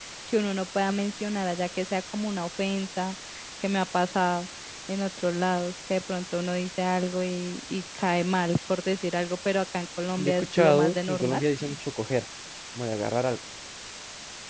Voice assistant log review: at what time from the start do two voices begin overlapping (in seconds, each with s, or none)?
10.2 s